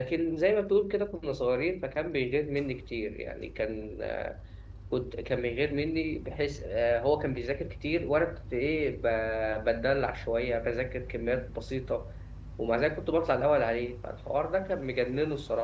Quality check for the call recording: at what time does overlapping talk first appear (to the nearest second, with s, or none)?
none